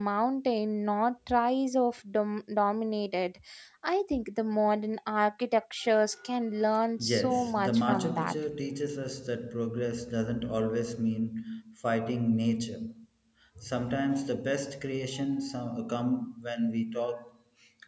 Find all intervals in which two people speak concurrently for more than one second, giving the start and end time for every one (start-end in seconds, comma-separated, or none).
7.0-8.3